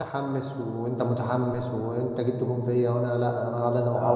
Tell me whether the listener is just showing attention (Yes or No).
No